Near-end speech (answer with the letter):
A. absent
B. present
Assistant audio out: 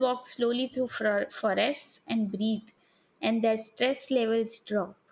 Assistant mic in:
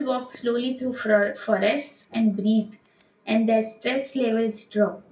A